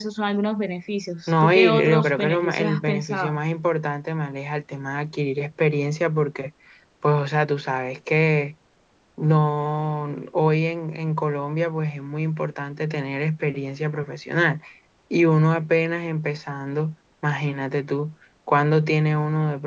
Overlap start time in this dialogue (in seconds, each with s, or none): 1.3 s